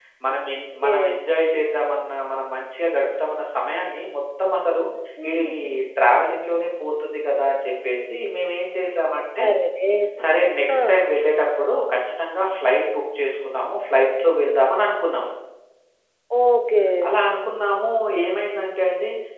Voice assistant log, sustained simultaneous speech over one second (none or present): none